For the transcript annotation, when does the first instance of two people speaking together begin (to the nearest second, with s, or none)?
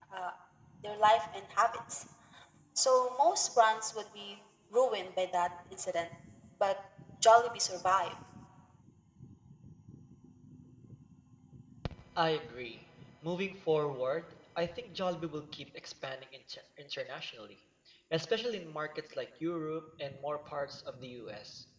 none